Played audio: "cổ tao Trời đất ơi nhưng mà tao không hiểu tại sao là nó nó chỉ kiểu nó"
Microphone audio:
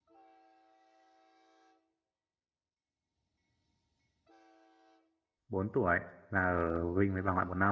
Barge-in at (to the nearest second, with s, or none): 5 s